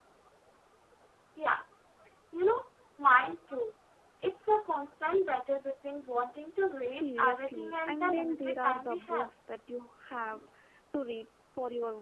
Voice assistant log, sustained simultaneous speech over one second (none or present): present